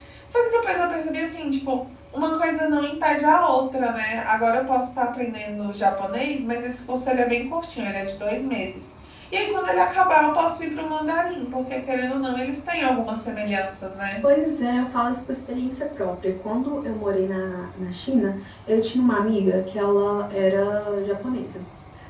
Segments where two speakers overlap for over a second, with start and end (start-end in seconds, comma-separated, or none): none